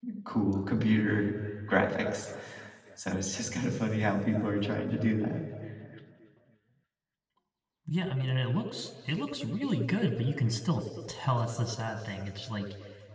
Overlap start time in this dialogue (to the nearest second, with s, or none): none